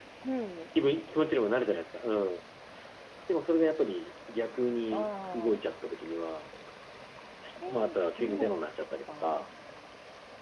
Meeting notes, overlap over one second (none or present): present